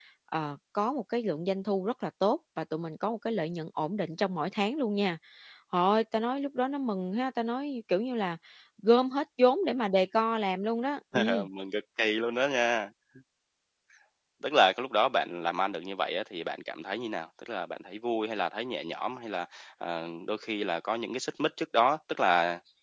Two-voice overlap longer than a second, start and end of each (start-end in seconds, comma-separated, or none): none